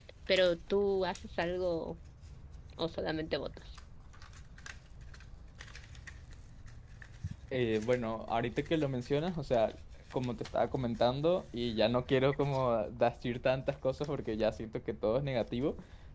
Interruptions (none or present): none